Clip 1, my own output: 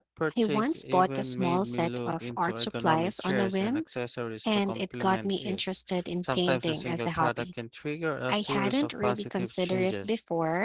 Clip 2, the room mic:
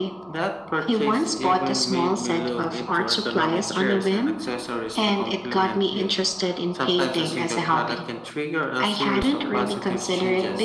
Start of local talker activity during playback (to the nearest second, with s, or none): none